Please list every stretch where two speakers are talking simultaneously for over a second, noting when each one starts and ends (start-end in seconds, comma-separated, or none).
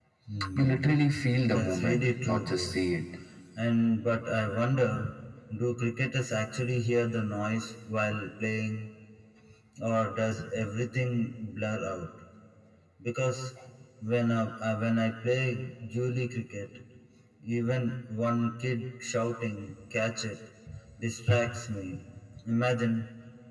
1.5-2.7